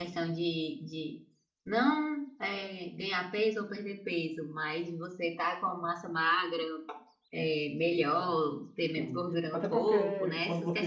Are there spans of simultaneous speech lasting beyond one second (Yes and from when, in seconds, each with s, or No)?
Yes, from 9.0 s